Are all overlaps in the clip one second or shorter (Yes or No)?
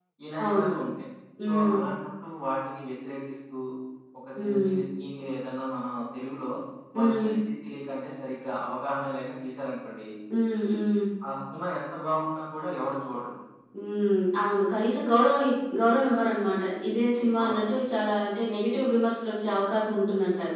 Yes